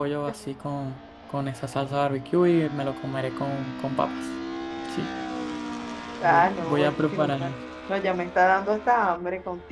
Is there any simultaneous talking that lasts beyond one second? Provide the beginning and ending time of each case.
6.2-7.5

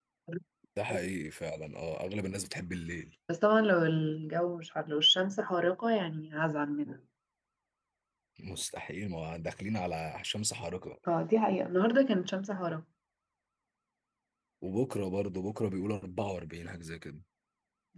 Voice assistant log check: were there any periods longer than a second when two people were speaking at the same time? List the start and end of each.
none

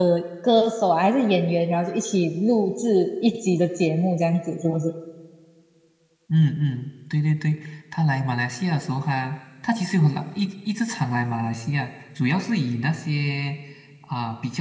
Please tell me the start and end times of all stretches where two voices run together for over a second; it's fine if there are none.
none

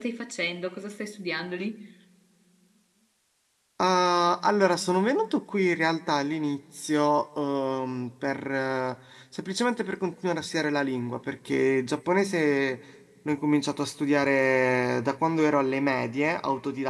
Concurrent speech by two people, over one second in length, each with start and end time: none

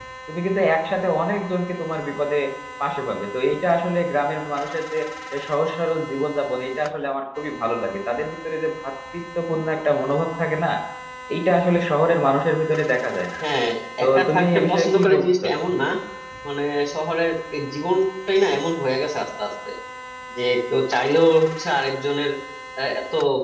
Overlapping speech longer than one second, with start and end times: 14.0-15.5

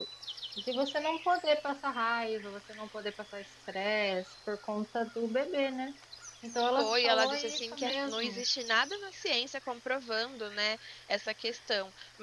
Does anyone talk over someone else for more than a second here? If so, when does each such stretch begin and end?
6.8-8.4

